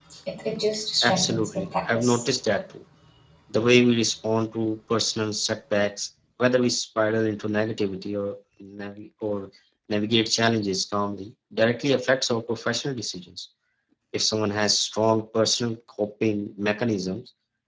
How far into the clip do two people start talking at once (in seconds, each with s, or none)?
1.0 s